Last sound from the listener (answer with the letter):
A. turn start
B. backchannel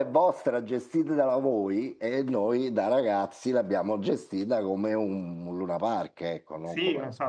A